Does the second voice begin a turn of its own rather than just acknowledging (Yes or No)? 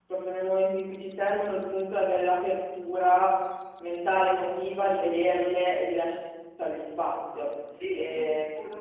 Yes